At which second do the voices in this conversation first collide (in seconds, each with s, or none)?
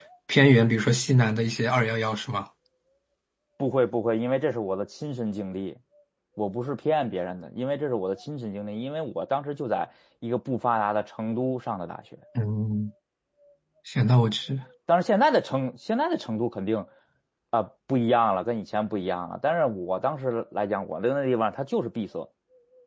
none